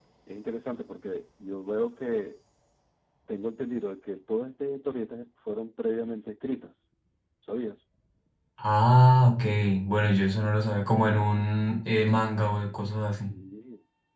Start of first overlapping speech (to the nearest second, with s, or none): none